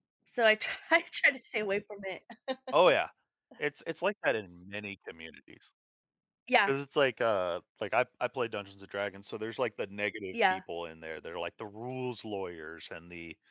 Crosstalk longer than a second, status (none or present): none